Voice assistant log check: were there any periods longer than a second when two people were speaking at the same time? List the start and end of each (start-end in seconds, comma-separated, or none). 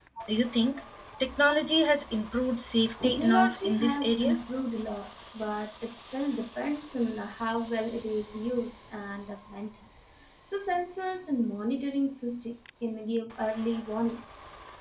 3.0-4.4